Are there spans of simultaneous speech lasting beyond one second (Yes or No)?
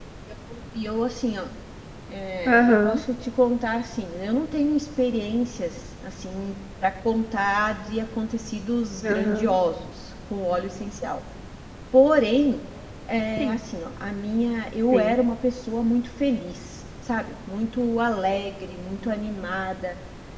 No